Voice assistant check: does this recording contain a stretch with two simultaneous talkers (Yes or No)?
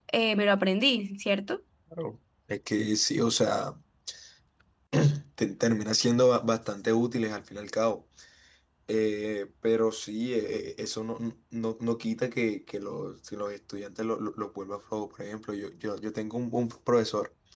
No